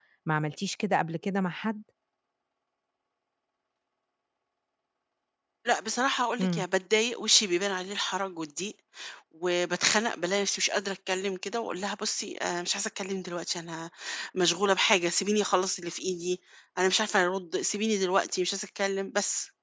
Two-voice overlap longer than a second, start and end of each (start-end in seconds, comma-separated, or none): none